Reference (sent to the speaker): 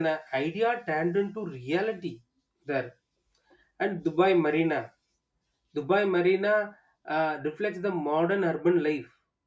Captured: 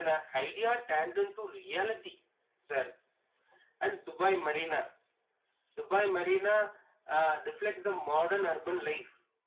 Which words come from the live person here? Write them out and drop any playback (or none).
none